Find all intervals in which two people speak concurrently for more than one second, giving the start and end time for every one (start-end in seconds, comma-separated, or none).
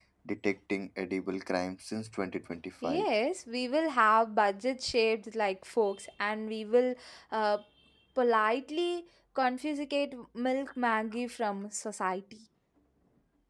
none